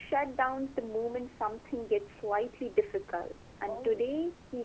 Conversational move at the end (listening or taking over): listening